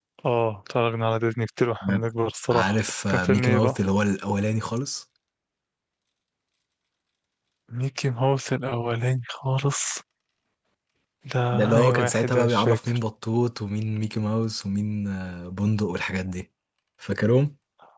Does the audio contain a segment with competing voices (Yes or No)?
Yes